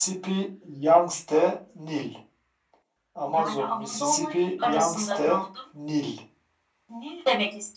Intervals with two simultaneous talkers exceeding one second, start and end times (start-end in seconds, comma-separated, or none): 3.4-5.4